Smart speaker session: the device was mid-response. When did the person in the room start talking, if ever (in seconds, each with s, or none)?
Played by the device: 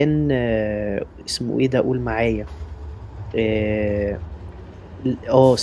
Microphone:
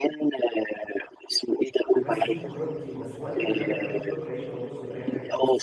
2.0 s